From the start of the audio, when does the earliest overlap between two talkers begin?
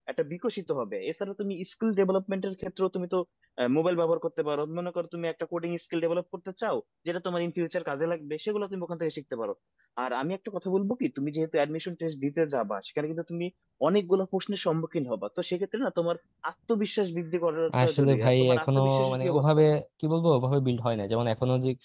18 s

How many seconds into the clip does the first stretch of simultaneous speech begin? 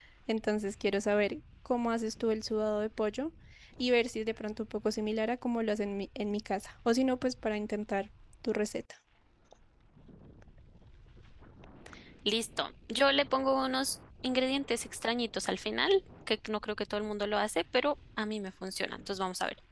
none

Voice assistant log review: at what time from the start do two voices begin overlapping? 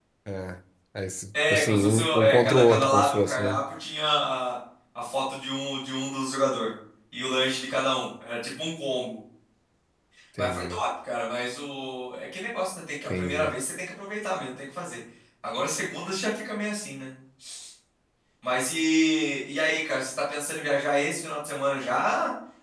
2 s

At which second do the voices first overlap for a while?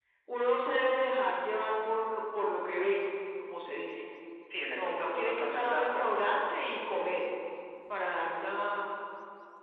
5 s

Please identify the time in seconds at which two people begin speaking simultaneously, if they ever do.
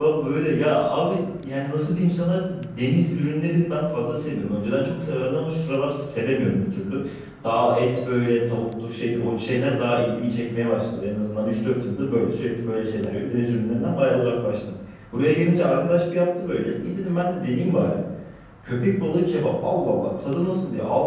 none

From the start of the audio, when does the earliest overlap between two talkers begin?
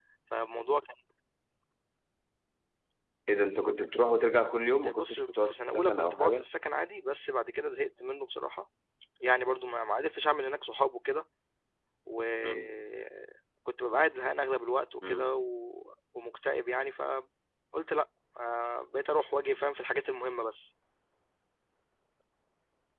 5 s

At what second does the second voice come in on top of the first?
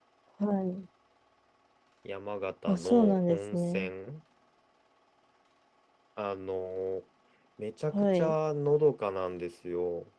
3 s

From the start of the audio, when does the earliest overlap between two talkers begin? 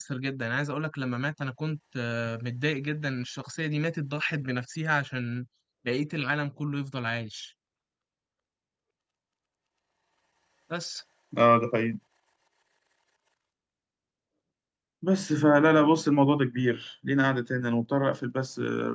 none

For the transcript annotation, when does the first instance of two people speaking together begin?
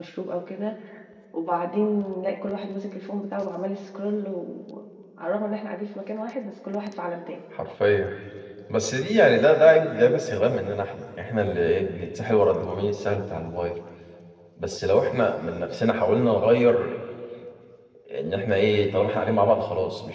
none

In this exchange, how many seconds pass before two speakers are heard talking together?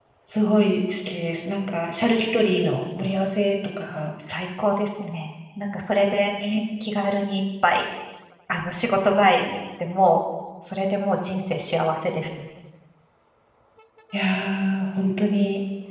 none

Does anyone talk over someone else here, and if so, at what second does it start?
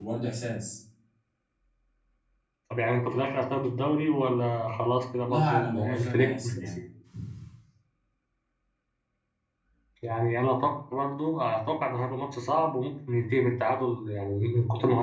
5 s

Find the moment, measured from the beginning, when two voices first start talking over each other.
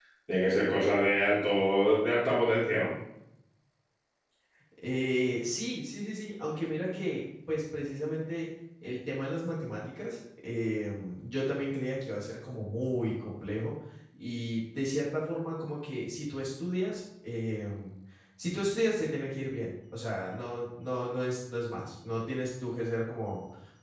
none

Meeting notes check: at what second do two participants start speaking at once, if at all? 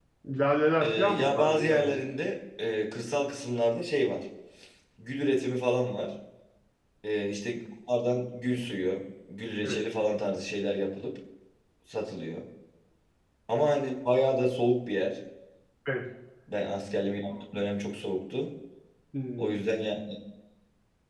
1 s

